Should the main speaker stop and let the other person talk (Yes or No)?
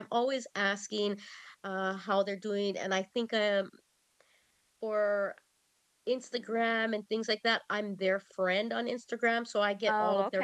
No